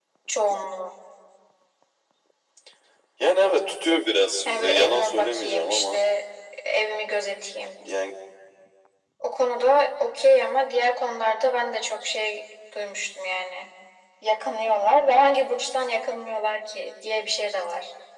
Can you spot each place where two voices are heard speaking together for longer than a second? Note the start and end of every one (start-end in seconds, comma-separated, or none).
4.5-6.0